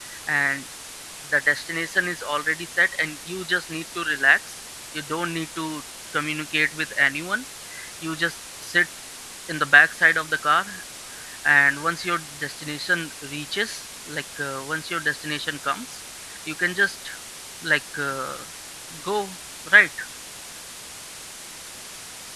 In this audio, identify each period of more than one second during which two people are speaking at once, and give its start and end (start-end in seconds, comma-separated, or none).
none